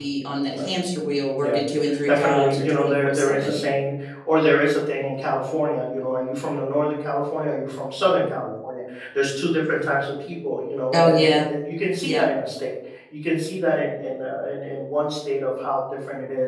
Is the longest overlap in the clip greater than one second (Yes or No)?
Yes